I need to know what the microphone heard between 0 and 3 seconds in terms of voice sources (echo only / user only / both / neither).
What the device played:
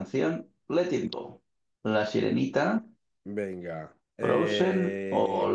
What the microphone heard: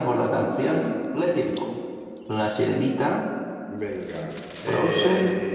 echo only